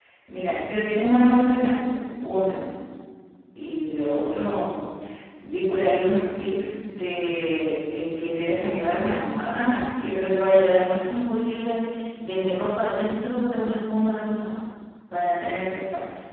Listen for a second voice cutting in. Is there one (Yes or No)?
No